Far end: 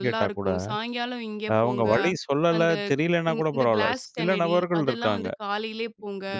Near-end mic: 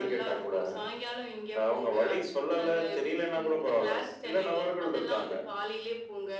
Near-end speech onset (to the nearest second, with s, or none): none